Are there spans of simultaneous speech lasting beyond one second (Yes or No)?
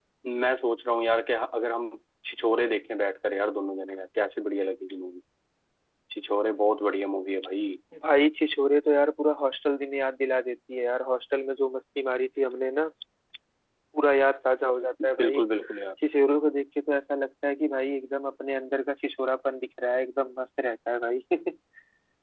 No